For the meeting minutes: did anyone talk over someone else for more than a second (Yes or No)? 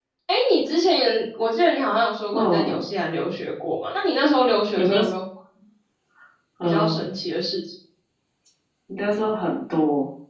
No